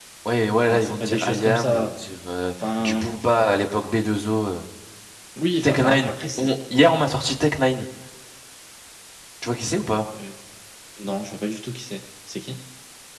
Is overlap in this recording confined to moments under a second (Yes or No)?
No